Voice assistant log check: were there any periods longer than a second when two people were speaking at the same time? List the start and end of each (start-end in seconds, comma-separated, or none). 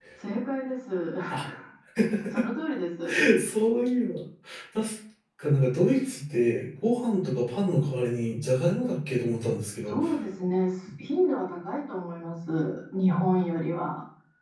none